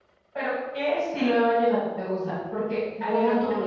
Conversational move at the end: listening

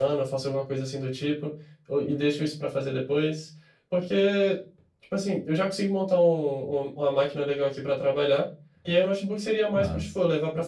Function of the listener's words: listening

